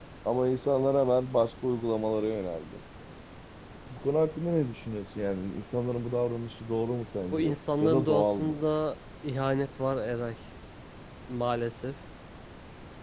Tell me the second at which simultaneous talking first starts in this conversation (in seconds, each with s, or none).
7.3 s